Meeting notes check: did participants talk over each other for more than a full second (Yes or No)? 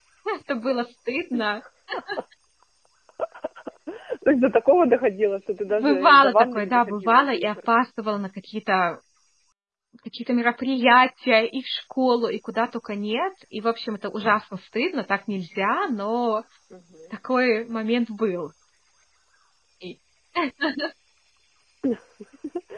Yes